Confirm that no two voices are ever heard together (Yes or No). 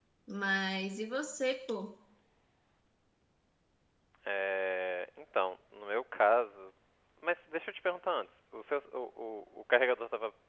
Yes